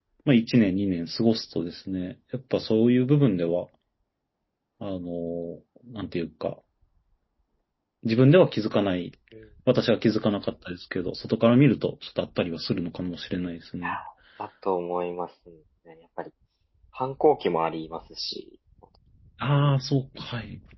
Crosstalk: none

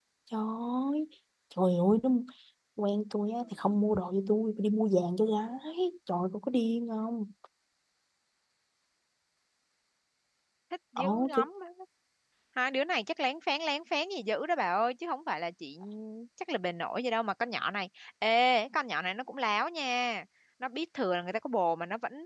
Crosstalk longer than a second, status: none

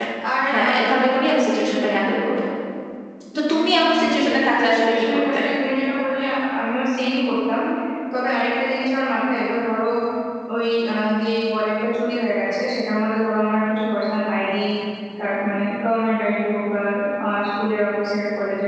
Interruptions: present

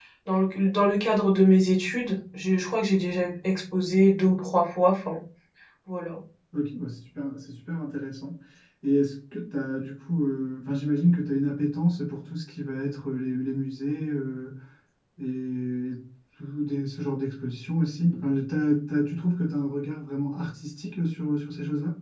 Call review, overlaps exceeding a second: none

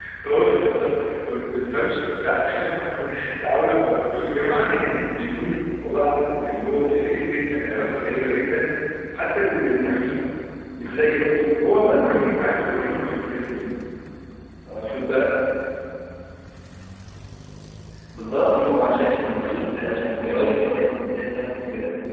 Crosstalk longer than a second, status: none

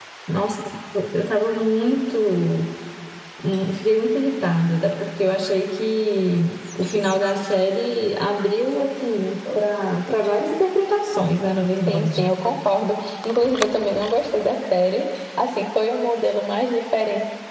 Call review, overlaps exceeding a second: none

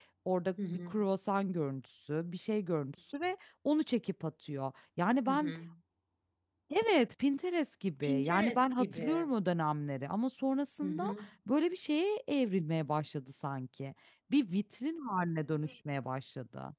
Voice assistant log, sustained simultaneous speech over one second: present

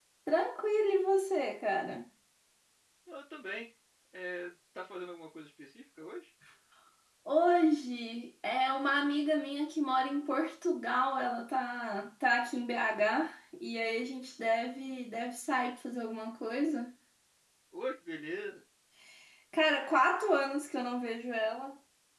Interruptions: none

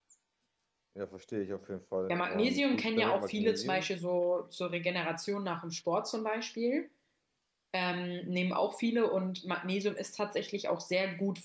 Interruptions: present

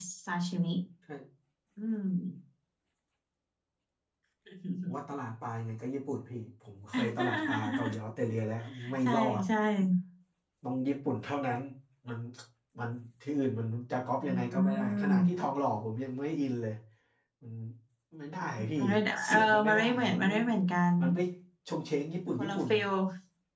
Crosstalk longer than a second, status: present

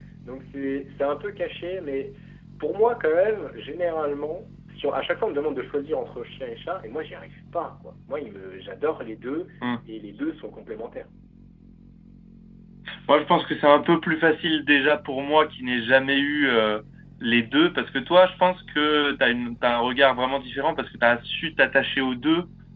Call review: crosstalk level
none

